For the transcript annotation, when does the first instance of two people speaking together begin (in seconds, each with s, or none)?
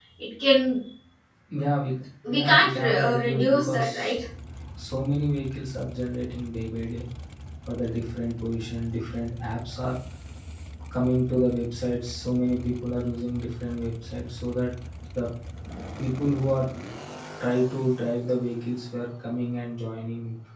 2.3 s